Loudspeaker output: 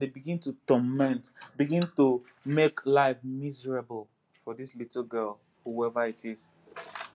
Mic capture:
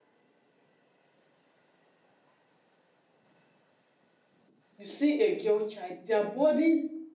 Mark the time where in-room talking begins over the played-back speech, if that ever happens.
4.8 s

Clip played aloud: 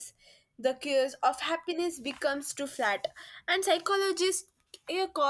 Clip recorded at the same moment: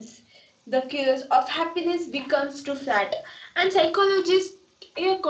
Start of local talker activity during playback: none

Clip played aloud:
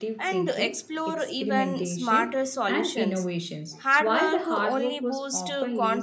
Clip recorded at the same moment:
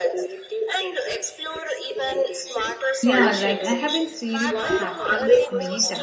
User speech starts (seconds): 3.0 s

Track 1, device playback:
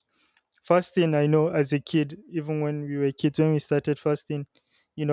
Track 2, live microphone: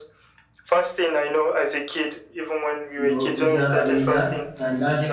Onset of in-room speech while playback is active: 3.0 s

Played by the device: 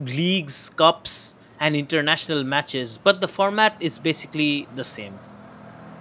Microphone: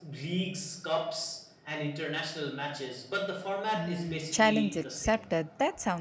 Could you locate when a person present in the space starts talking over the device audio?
3.8 s

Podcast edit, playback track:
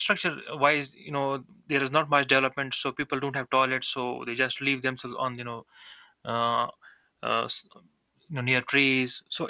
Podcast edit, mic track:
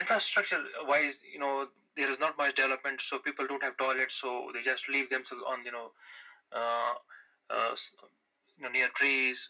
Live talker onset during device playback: none

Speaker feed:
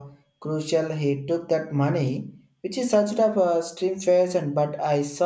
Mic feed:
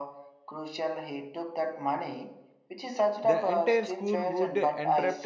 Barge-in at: 3.2 s

